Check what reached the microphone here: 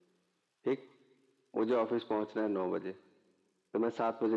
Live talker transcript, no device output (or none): none